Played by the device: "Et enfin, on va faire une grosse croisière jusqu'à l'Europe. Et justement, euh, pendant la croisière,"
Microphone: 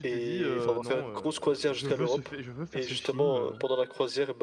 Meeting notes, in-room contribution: present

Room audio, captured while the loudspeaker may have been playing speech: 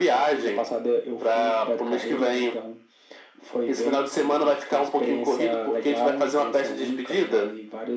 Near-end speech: none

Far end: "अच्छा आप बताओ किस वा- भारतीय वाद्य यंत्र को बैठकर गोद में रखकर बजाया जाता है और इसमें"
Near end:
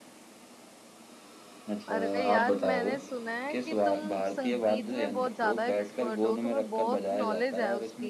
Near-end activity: present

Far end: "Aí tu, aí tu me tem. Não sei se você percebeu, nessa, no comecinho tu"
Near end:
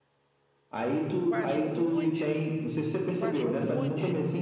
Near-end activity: present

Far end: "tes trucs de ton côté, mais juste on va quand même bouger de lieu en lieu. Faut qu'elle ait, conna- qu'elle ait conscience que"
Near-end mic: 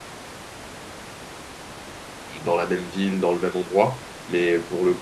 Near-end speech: present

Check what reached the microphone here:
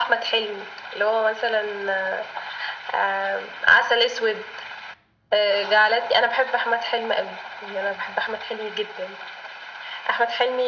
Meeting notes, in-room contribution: none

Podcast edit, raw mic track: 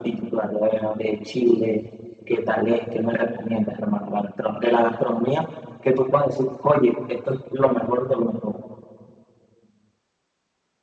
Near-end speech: none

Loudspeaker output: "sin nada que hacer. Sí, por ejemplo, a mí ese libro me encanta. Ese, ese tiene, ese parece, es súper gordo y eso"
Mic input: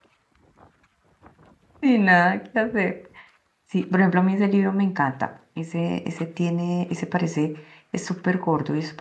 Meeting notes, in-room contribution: none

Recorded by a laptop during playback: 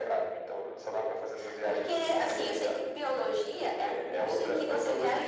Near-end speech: none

